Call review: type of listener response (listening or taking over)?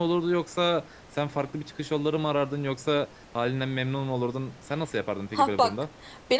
taking over